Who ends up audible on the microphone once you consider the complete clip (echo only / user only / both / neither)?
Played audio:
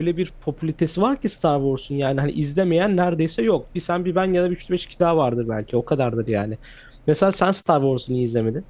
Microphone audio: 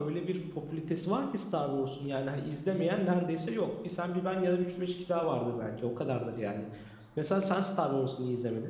echo only